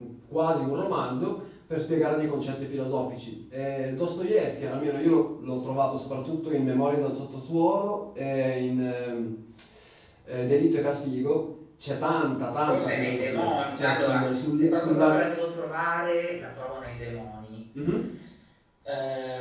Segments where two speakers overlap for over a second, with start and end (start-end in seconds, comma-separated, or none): 12.6-15.2